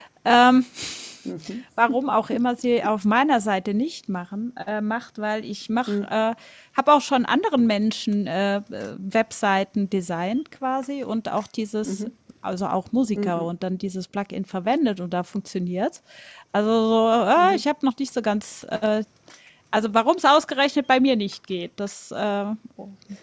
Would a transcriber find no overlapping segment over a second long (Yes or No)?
Yes